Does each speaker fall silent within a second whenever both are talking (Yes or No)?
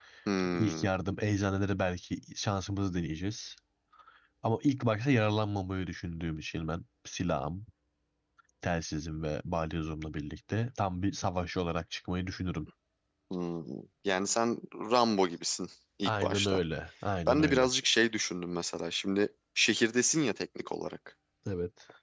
Yes